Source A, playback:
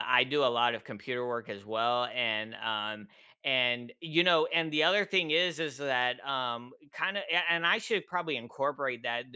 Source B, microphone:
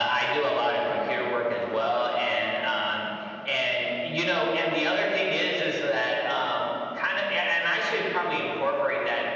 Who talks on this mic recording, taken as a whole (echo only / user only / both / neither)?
echo only